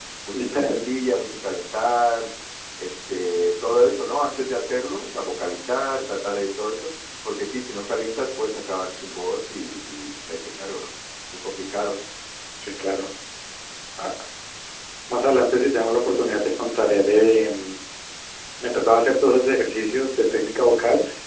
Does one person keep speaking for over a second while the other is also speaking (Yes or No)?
No